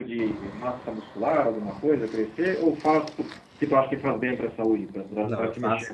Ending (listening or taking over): taking over